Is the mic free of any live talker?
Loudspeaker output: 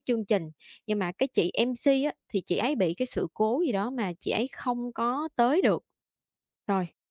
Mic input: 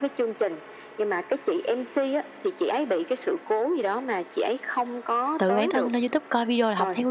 No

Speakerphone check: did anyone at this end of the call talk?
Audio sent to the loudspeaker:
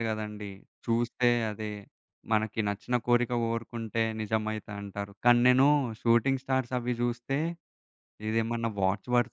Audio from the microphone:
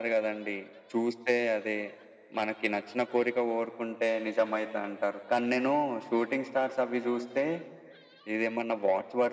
No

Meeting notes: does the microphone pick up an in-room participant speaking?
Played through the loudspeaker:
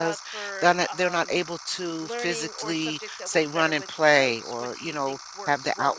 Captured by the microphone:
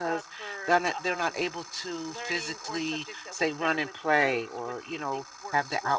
No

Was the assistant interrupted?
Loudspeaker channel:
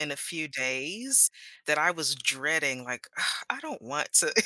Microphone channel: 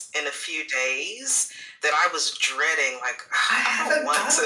Yes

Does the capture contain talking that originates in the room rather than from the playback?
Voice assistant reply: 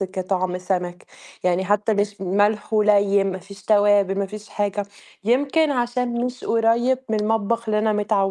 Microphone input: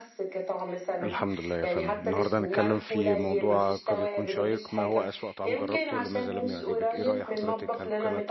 Yes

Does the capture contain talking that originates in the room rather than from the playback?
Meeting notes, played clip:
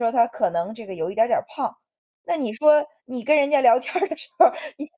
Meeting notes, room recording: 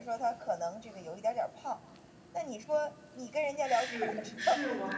Yes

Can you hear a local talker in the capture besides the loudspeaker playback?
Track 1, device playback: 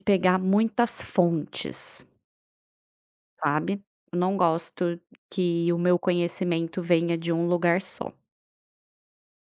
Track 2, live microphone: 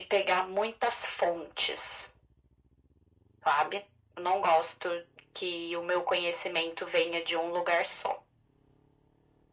No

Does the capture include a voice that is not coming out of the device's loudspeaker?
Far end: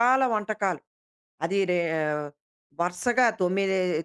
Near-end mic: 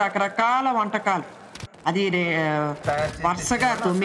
Yes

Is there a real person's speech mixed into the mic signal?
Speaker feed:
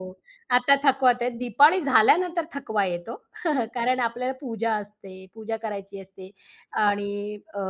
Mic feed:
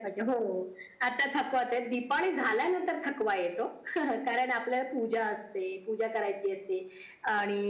No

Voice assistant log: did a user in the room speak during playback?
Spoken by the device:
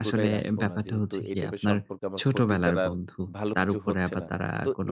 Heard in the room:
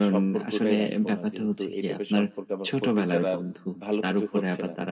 No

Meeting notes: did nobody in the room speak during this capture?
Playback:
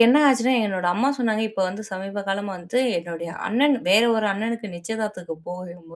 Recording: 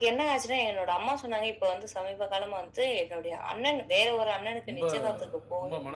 No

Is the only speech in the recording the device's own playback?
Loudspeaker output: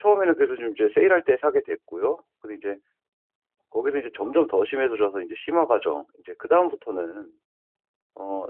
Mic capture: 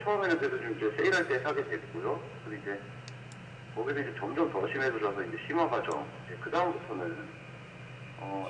Yes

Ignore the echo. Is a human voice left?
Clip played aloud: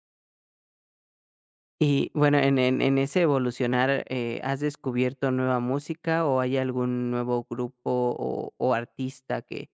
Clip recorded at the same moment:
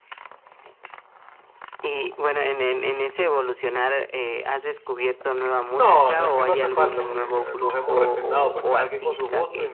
Yes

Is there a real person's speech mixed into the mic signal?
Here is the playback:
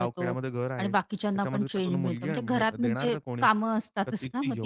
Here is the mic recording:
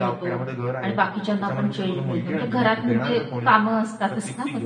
No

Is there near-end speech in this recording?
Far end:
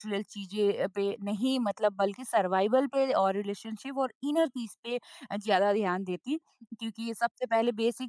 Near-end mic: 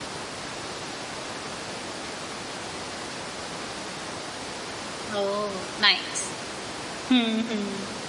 Yes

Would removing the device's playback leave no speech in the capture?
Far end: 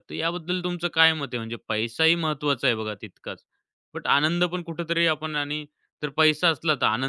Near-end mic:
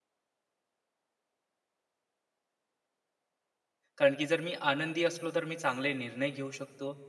No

